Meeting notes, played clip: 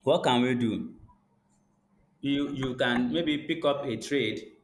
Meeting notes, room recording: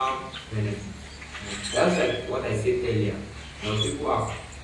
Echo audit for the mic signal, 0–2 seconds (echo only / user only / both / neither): user only